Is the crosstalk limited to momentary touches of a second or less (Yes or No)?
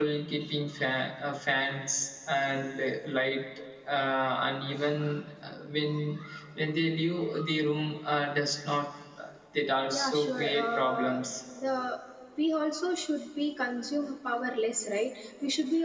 No